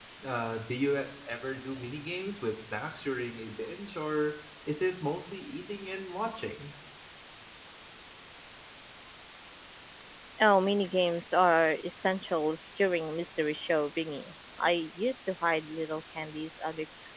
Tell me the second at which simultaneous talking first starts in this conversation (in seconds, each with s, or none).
none